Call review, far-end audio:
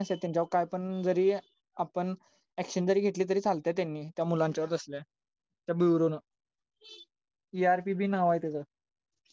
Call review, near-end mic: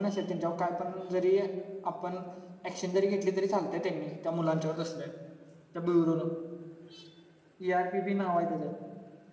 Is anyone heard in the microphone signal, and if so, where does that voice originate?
echo only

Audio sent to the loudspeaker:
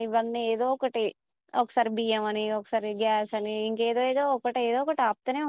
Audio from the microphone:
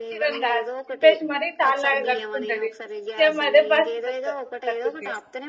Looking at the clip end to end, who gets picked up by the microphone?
both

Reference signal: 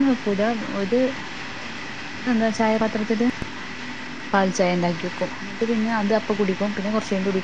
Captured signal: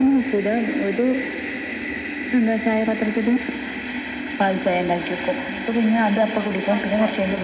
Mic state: both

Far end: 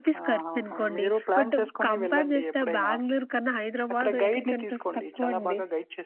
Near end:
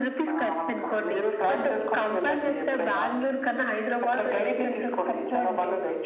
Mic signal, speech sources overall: echo only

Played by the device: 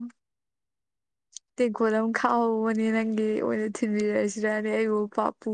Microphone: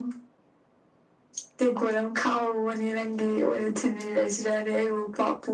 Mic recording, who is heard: echo only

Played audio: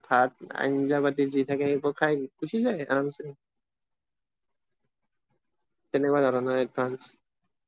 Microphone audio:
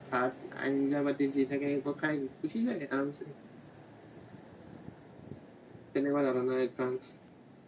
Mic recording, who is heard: echo only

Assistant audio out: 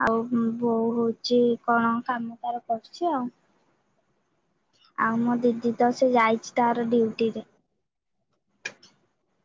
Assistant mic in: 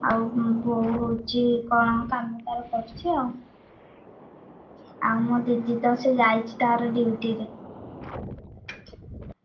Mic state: echo only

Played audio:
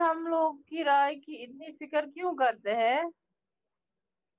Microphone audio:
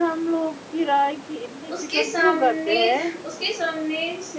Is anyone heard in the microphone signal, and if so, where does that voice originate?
both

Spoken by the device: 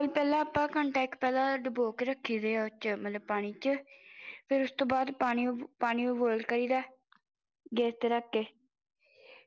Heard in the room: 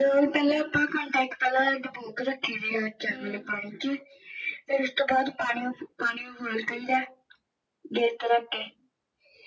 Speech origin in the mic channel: both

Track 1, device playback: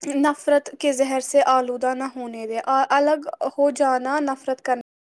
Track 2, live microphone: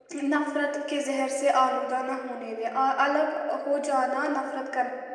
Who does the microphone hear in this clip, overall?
echo only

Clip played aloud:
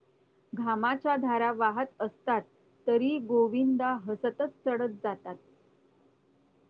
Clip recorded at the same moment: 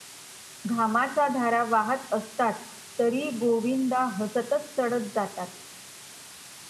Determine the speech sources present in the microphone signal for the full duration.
echo only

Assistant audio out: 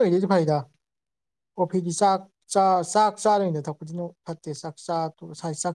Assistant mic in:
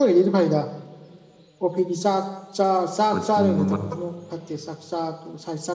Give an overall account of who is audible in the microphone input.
both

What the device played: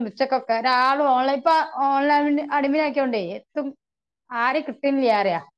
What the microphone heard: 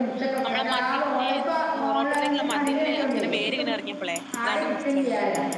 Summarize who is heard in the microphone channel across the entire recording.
both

